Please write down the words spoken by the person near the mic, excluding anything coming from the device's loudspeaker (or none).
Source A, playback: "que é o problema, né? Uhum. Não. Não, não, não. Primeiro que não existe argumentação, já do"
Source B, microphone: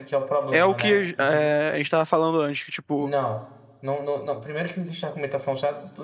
É o que é, a gente tava falando antes, que tipo,